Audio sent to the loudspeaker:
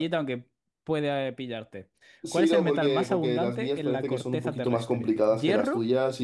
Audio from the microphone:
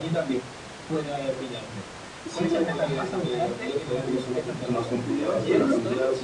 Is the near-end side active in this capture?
Yes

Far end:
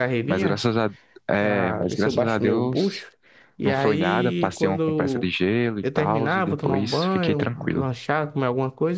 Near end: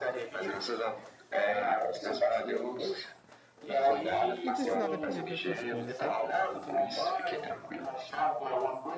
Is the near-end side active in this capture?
Yes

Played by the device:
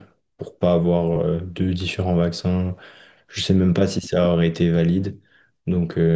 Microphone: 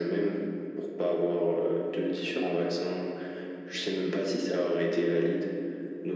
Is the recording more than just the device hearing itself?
Yes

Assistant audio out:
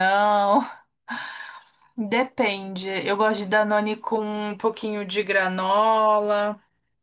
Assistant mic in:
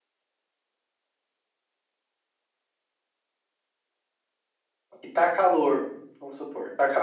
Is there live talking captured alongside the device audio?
Yes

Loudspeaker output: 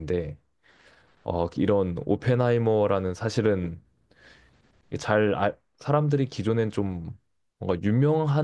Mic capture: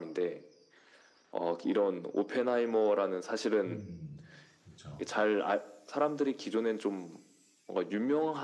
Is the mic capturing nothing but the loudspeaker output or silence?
No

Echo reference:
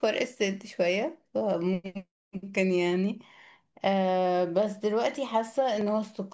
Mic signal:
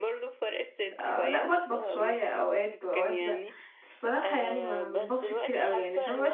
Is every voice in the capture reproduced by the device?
No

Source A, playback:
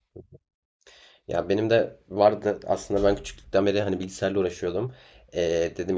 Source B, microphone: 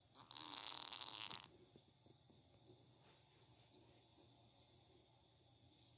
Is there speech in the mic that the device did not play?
No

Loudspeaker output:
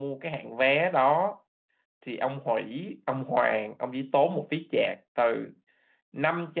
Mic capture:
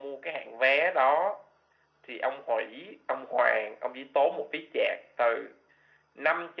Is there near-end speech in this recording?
No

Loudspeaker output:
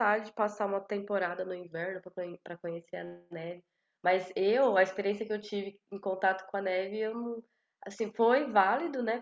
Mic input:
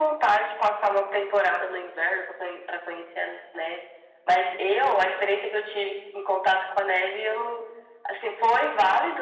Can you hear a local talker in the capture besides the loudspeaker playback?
No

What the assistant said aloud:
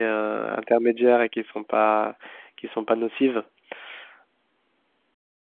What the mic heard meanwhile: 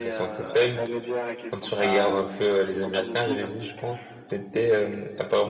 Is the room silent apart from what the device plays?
No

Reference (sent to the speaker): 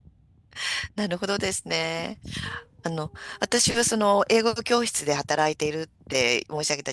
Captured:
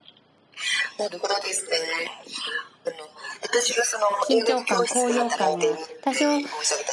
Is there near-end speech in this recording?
Yes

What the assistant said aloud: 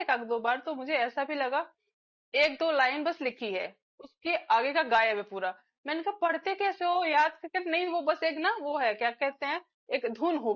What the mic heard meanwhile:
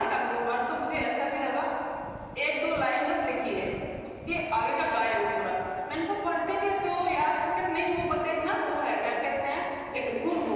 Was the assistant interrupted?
No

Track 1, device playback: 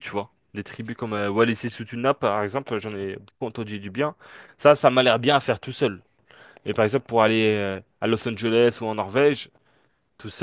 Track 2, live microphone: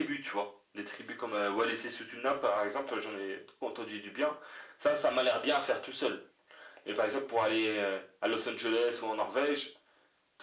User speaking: No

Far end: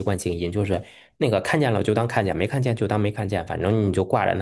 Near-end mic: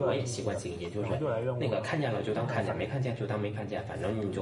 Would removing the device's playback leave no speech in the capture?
No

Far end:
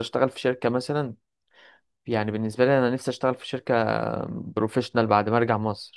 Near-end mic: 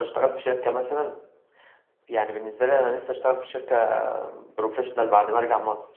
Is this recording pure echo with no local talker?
Yes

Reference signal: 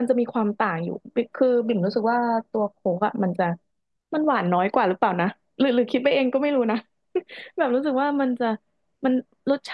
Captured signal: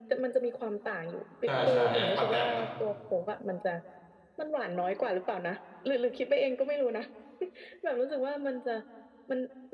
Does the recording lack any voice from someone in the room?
No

